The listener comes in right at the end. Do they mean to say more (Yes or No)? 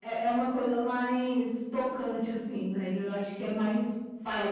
Yes